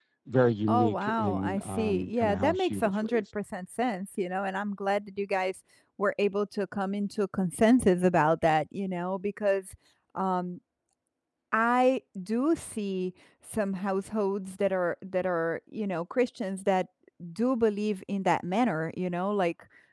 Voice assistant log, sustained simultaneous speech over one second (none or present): present